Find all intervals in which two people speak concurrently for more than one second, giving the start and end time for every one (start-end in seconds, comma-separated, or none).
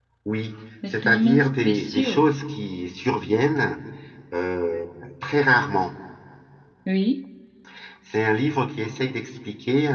0.9-2.3